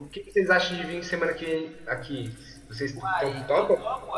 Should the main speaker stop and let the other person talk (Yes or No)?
Yes